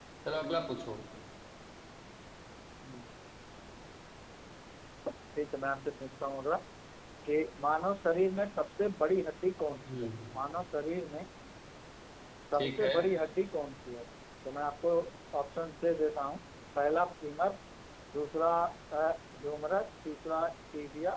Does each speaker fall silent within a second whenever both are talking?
Yes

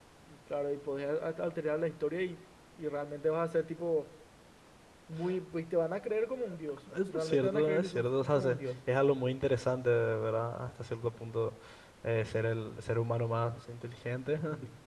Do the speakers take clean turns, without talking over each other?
No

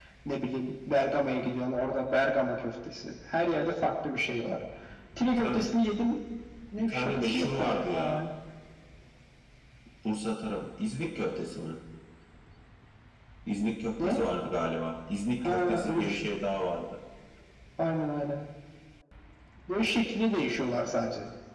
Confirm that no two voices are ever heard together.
No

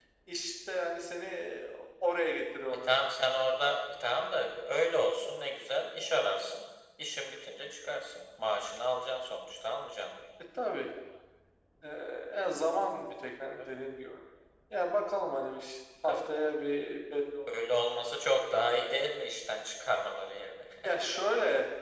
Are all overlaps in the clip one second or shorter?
Yes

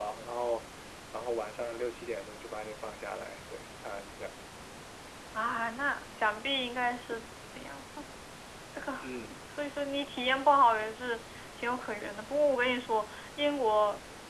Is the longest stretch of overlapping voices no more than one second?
Yes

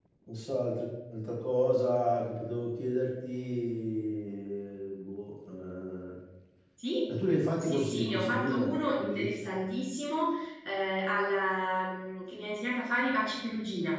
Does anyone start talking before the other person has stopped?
Yes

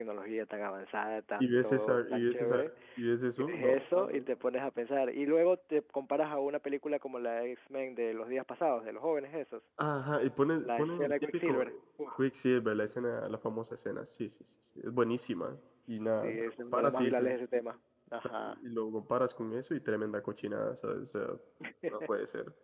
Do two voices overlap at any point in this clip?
Yes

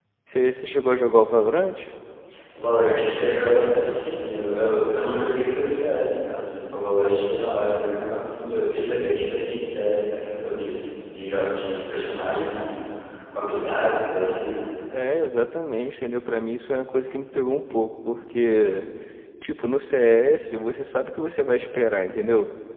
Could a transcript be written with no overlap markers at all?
Yes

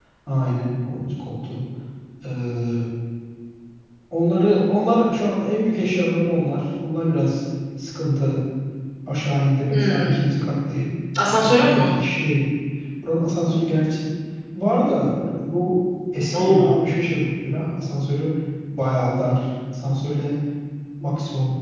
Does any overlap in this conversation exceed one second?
No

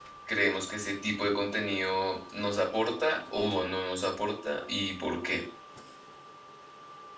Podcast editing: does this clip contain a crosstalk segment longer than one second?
No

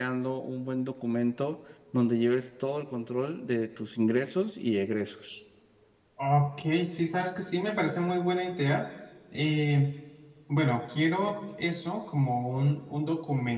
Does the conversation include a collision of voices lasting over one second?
No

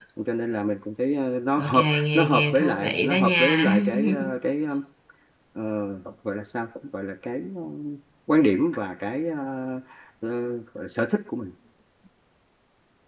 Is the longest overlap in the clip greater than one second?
Yes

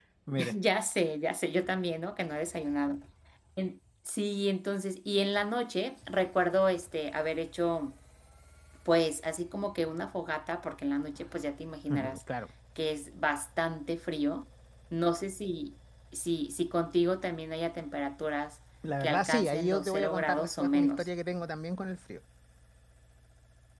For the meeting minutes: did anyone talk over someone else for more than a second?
Yes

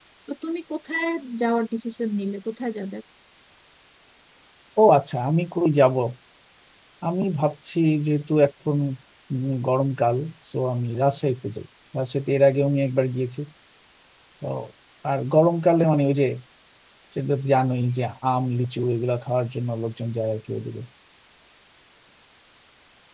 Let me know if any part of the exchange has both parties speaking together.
No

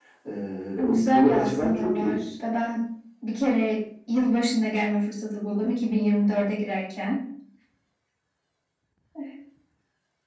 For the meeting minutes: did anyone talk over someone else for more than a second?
Yes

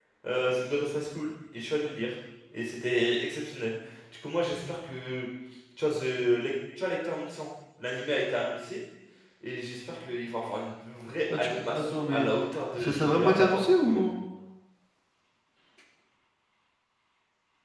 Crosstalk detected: Yes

